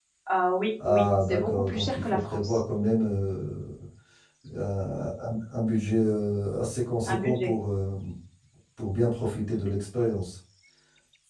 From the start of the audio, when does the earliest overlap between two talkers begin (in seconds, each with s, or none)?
0.8 s